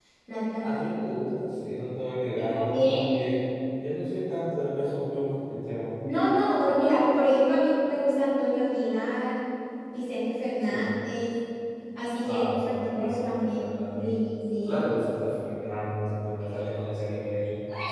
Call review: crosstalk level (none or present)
present